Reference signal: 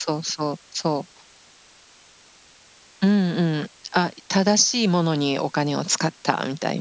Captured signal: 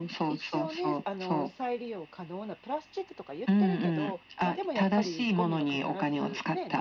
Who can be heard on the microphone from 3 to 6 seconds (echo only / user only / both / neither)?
both